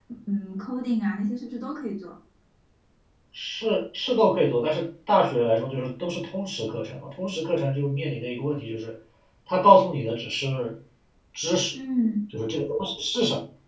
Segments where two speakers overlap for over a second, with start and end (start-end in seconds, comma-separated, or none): none